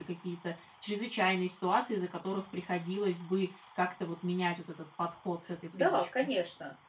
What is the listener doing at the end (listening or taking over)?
taking over